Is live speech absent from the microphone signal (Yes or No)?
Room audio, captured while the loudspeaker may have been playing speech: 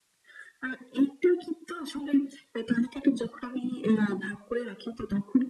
Yes